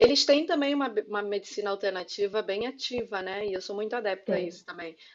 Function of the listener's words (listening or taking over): listening